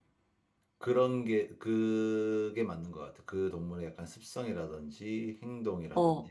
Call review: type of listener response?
listening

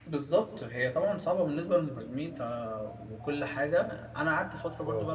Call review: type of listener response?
listening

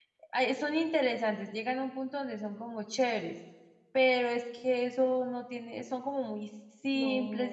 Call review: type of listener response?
listening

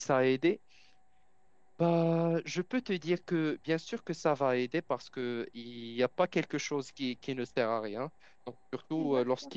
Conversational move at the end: listening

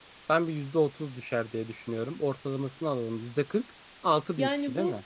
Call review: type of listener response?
taking over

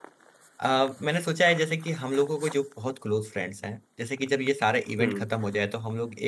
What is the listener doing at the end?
listening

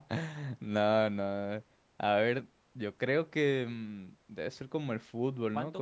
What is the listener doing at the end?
taking over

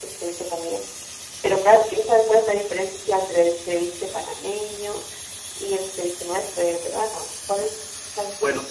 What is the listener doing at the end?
taking over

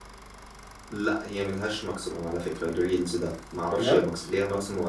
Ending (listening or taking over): listening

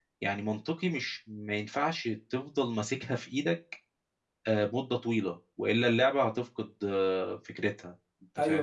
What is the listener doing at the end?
taking over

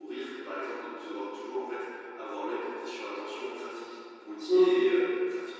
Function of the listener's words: listening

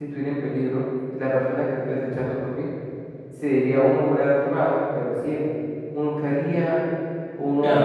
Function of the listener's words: taking over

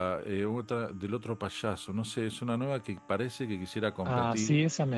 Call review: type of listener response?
taking over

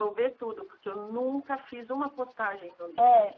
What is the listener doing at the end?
taking over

